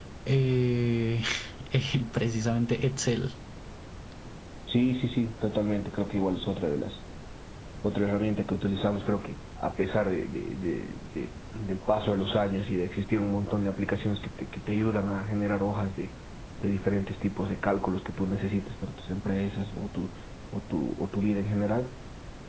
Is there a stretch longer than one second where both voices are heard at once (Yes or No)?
No